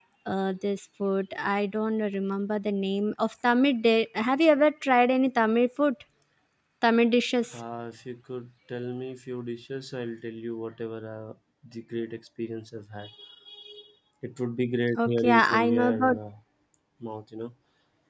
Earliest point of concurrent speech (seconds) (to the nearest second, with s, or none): 15 s